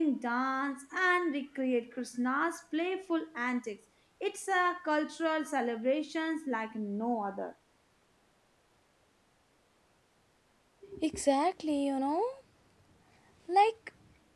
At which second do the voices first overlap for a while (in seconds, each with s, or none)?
none